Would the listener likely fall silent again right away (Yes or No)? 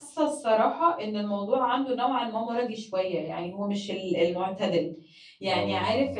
Yes